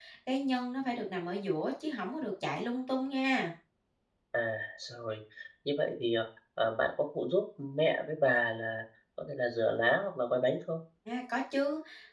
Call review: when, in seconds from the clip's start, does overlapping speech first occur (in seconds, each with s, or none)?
none